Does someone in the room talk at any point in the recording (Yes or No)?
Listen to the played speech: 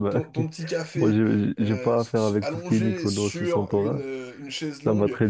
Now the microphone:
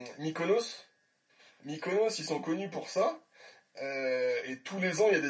Yes